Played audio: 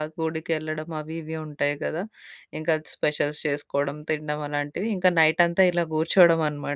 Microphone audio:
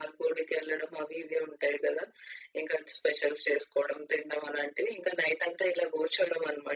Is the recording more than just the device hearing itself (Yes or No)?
No